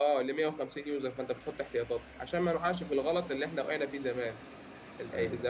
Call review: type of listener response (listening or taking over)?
listening